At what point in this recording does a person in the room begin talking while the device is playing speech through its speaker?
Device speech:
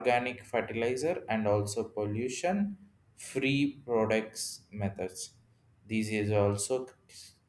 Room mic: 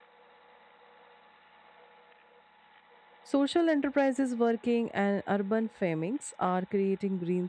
3.2 s

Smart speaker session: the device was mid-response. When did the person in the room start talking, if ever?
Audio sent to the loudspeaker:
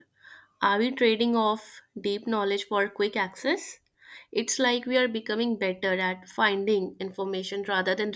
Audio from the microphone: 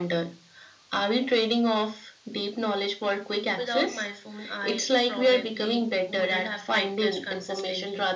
3.6 s

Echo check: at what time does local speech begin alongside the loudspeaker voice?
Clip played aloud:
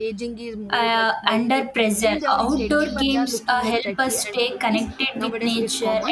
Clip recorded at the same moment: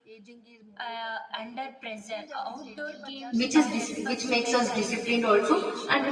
3.3 s

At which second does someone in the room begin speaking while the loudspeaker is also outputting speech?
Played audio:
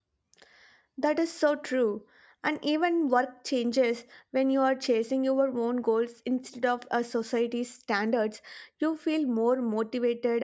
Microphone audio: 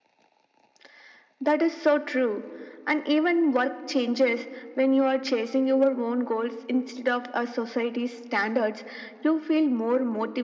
none

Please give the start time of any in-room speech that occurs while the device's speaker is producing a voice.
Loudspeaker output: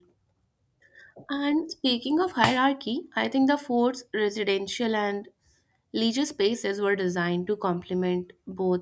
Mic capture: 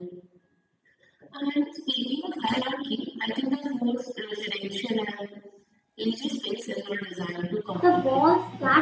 7.8 s

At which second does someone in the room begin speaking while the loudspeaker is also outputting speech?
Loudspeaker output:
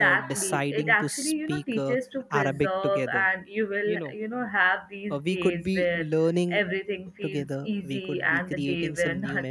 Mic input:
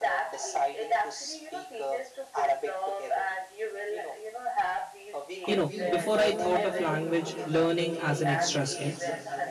5.5 s

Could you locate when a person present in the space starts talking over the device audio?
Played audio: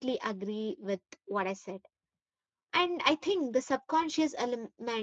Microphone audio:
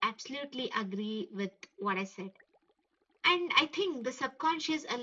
none

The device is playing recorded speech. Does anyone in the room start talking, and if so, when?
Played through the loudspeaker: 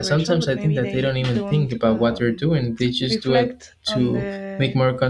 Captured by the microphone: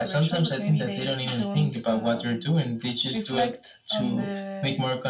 none

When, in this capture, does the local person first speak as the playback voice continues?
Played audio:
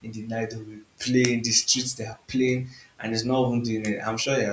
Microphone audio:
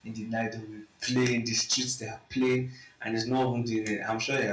none

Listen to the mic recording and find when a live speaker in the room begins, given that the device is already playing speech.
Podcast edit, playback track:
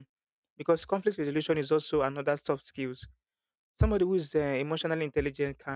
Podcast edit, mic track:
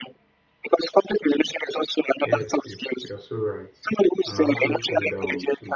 2.2 s

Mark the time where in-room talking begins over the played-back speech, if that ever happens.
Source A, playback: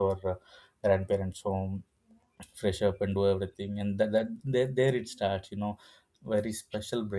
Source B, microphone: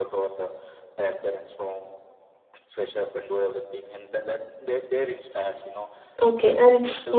6.2 s

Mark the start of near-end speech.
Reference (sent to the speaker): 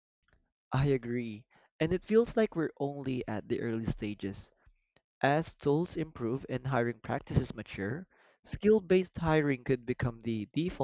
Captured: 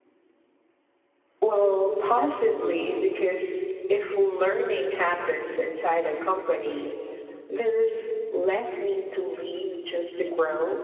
1.4 s

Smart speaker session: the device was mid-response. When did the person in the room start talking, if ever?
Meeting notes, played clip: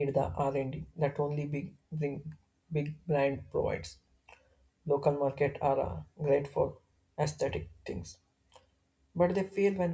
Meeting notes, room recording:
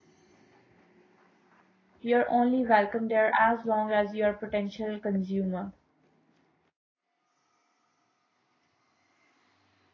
2.0 s

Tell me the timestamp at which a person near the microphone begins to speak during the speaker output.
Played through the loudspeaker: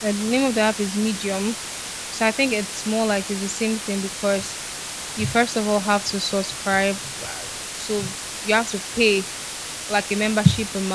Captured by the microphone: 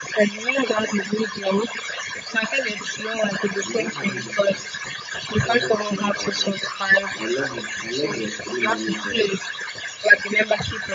3.6 s

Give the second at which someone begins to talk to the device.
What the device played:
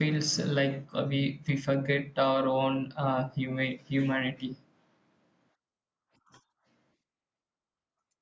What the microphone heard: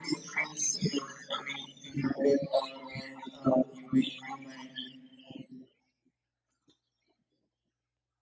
none

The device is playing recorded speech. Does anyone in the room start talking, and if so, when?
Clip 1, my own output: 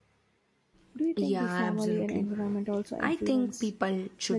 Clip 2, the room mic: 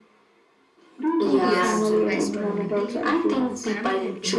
1.5 s

